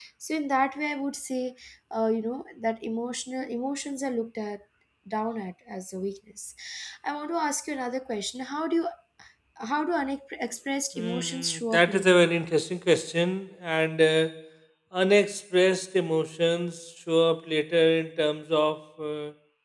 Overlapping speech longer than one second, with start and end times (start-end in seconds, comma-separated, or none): 11.0-12.2